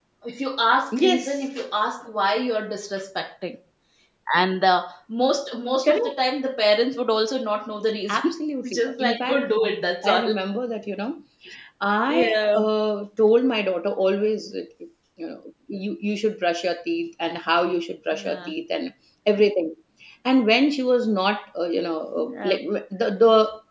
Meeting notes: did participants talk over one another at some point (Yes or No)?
Yes